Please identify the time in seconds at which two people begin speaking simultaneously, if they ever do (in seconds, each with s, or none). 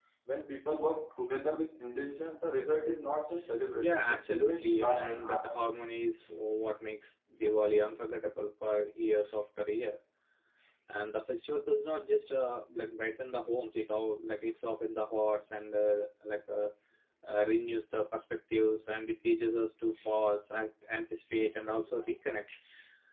3.7 s